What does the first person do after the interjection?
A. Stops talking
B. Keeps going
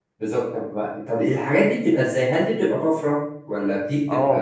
A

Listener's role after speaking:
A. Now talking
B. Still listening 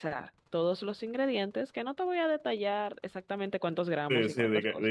A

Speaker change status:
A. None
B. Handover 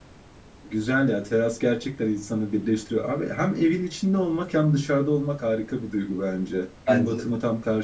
A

